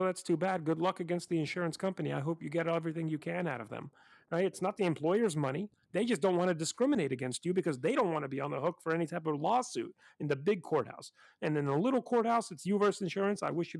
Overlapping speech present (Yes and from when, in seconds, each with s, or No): No